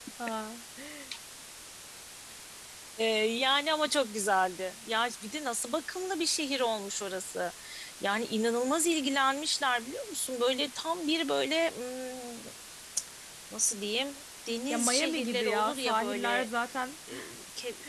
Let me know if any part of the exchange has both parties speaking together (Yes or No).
Yes